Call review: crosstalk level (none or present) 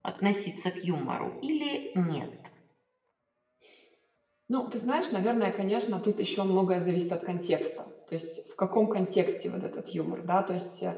none